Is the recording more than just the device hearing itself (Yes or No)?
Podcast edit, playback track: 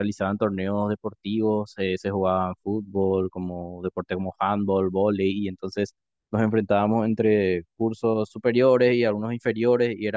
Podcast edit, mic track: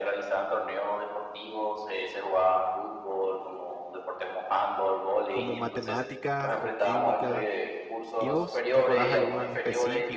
Yes